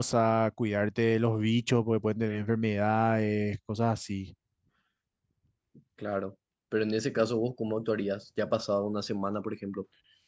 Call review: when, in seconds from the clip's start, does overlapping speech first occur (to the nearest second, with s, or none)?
none